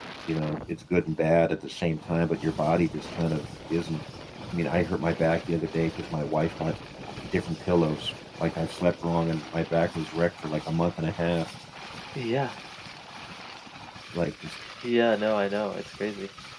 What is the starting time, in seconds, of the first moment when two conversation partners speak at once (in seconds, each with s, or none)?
none